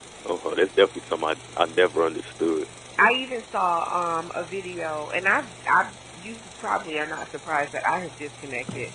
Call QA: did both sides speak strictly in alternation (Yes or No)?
Yes